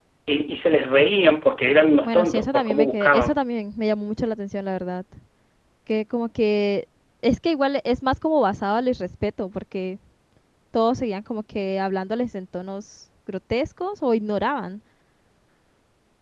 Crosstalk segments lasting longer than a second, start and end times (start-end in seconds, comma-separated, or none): 2.0-3.4